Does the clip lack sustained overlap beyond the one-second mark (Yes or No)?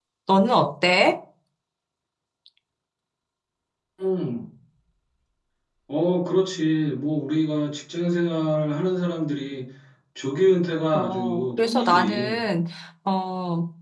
No